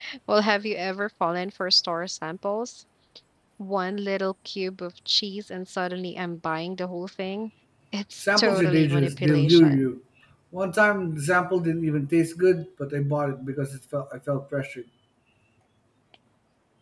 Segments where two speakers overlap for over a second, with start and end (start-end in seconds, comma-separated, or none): 8.2-9.9